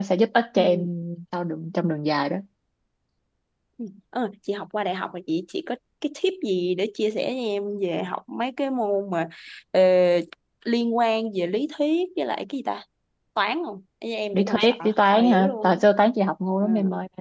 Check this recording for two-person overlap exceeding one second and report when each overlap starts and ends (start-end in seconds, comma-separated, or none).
14.3-15.8